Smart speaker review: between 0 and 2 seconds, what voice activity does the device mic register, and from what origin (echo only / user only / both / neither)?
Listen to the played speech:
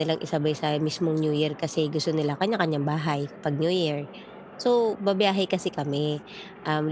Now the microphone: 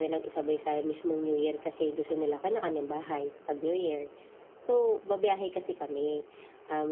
echo only